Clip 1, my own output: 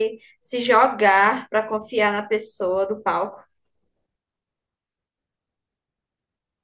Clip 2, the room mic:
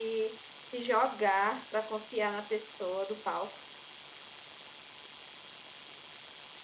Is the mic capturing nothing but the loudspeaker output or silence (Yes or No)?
Yes